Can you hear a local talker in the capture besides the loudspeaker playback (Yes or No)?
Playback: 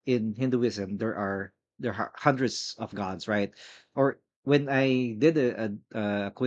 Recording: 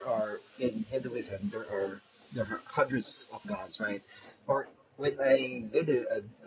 No